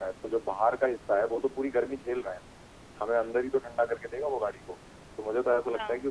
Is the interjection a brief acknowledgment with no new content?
Yes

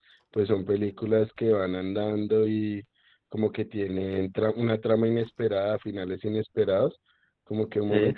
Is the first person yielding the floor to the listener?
No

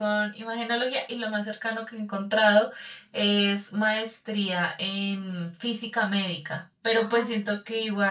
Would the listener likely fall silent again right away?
Yes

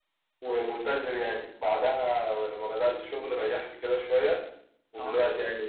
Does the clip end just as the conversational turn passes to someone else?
No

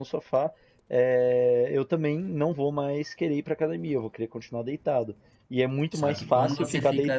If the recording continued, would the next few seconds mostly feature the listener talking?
Yes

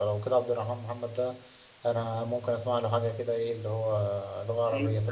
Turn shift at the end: Yes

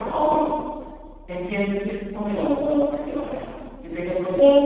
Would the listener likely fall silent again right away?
No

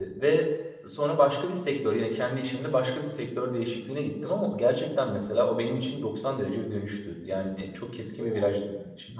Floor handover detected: No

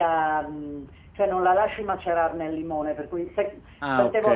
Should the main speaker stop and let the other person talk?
No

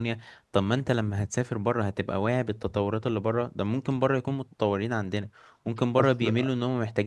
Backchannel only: Yes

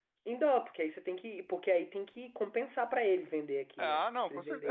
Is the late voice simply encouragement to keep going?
No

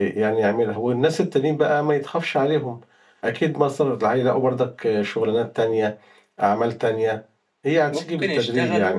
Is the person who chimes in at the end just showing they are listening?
No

